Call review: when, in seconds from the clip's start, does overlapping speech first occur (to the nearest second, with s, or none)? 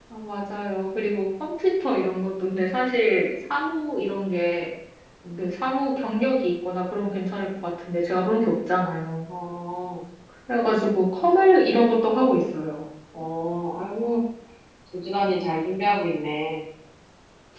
none